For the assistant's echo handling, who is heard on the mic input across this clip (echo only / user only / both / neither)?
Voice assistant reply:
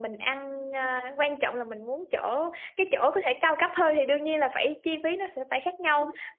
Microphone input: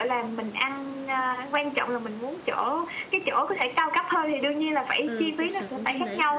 both